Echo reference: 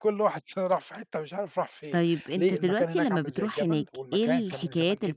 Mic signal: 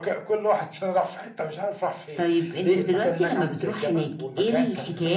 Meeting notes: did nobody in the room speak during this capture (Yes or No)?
Yes